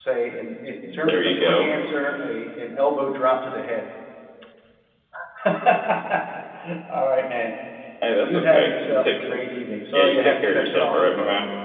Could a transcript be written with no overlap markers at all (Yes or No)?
No